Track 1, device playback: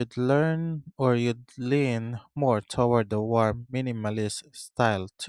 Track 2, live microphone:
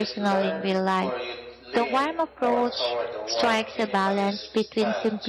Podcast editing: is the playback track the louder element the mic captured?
No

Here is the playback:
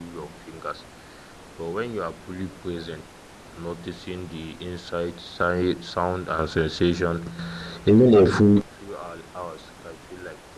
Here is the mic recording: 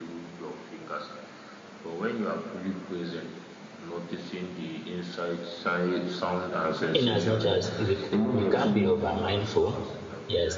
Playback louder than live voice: No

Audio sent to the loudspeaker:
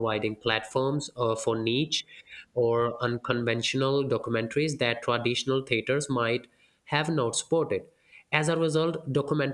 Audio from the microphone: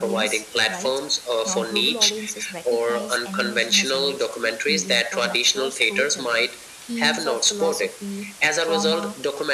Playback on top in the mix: Yes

